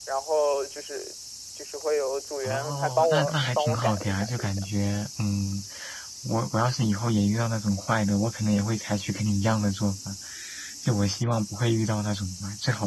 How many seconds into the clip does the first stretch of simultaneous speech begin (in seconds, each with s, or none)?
2.4 s